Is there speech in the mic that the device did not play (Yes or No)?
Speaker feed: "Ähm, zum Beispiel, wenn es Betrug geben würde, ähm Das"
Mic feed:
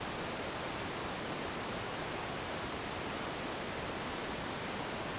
No